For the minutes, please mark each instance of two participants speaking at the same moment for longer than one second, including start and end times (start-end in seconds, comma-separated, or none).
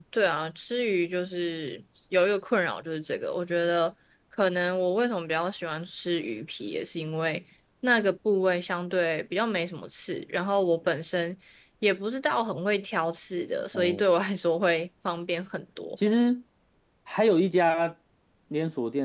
none